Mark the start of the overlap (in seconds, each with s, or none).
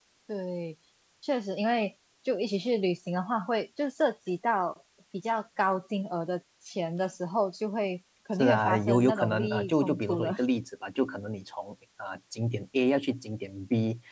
8.3 s